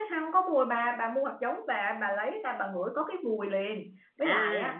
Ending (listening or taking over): listening